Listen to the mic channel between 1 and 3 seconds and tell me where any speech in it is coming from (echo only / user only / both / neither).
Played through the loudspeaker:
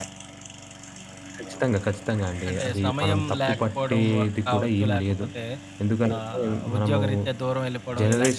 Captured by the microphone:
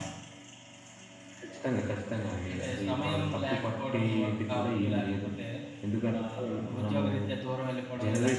echo only